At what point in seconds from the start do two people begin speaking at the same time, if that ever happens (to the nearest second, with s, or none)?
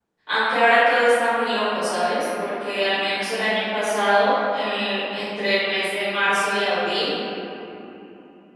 none